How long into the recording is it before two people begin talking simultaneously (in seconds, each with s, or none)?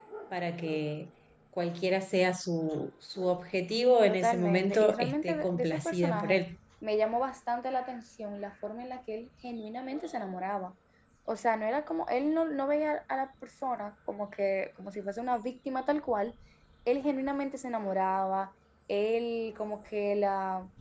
4.1 s